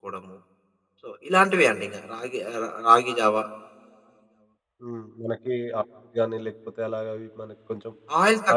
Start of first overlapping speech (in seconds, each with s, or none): none